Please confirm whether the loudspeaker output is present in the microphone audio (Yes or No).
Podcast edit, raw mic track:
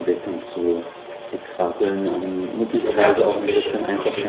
Yes